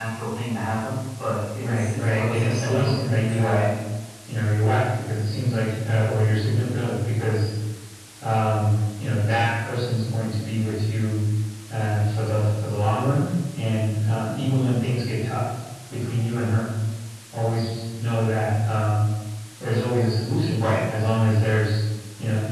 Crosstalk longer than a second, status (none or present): present